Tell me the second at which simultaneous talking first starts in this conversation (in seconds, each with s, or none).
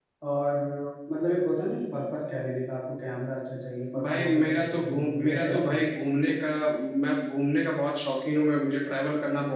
3.9 s